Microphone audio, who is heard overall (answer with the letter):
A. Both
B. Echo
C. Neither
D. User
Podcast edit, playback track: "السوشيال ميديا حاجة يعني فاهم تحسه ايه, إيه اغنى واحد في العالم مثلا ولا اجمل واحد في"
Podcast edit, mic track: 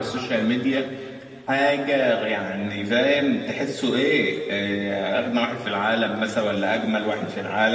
B